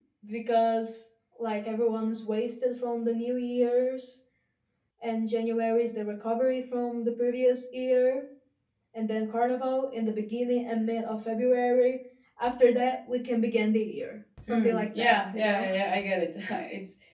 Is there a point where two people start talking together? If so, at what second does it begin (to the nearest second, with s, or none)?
14 s